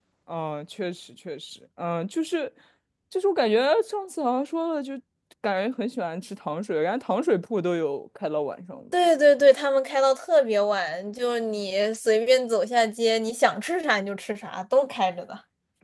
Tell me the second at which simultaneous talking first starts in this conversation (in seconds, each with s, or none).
none